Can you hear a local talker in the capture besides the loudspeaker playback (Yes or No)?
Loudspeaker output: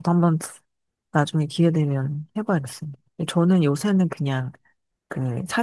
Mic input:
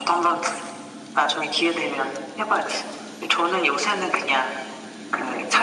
No